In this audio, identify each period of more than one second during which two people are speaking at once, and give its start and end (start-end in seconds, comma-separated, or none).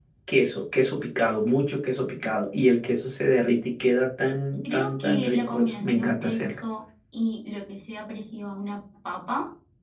4.7-6.5